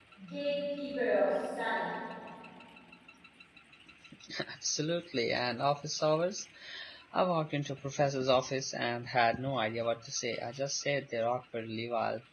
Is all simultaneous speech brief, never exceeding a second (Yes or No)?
Yes